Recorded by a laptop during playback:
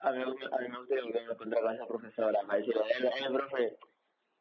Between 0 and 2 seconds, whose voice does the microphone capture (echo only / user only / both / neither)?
echo only